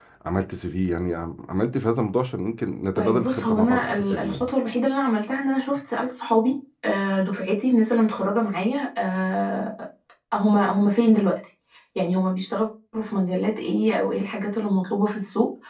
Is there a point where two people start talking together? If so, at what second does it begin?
3.0 s

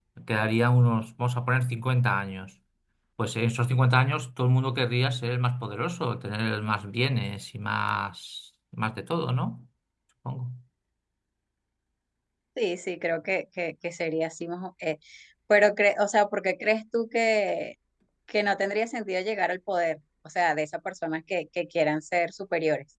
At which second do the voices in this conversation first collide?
none

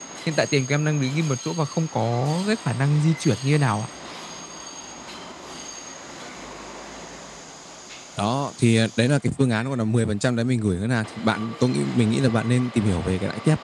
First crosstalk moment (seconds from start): none

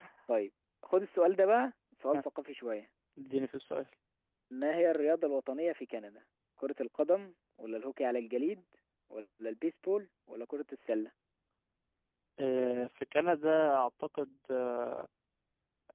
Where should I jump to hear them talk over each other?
none

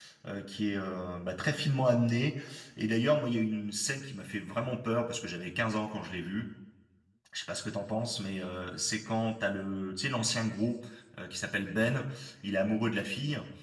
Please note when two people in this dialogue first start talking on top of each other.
none

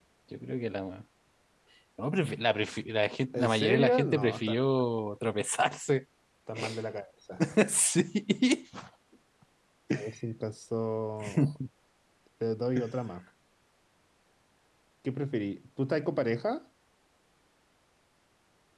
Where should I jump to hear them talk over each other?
3.3 s

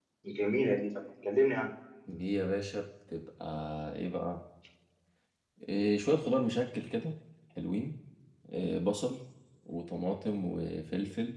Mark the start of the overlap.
none

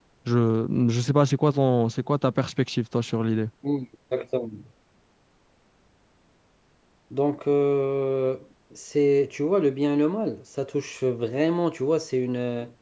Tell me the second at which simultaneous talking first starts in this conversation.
none

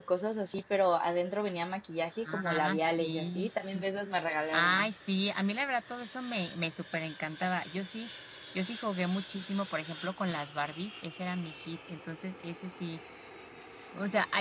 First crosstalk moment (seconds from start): 2.2 s

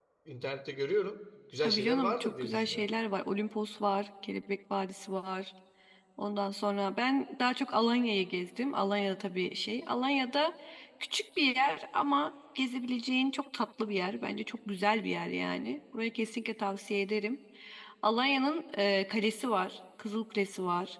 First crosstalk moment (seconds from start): 1.6 s

